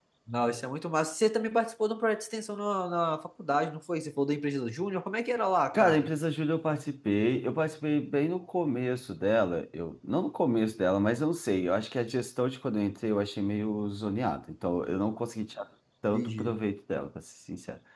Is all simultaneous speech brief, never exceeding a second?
Yes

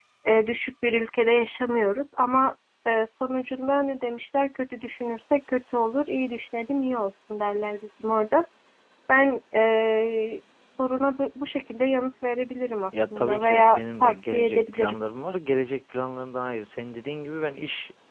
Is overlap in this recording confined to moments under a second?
No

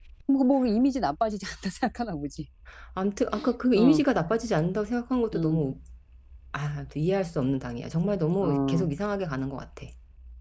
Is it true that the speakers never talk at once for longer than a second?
Yes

